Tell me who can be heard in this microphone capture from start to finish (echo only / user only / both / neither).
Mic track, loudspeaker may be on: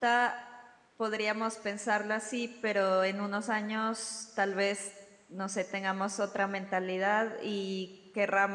user only